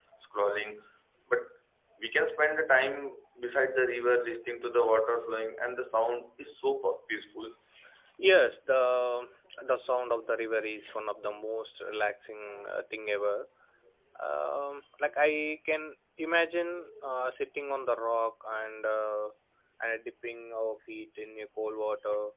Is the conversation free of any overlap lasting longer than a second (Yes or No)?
Yes